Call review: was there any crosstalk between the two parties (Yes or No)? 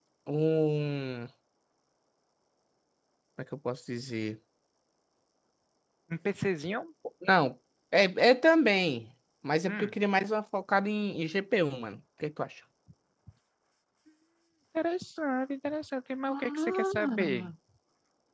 Yes